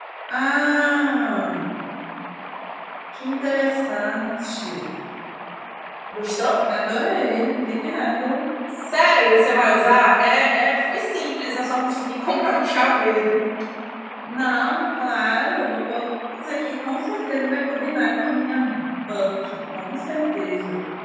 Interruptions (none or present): none